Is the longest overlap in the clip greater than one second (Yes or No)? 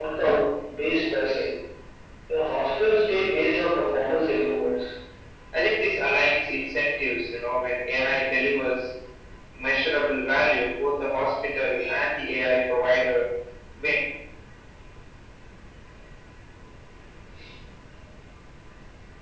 No